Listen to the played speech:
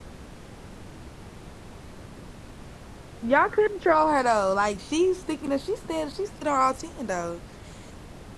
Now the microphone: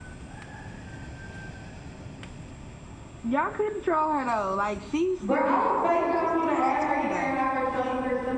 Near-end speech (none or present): present